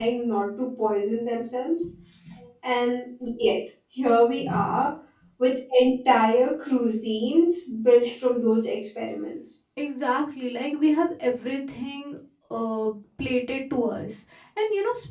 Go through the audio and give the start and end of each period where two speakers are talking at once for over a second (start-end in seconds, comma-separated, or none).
none